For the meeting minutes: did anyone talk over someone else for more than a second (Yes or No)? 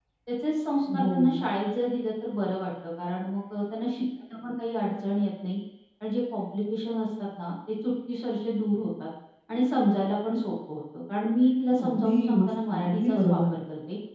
Yes